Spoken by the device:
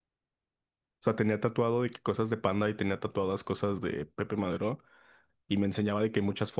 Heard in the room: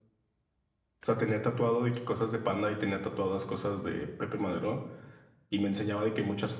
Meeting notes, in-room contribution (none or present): none